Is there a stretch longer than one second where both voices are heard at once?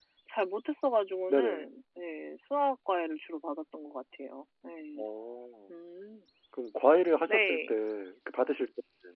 No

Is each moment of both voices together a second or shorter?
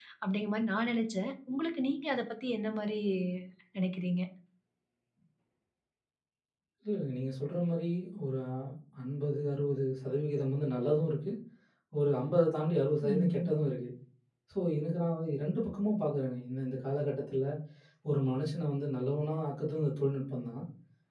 Yes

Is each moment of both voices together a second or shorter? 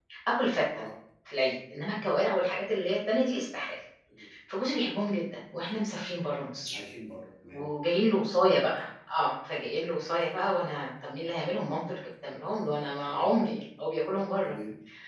Yes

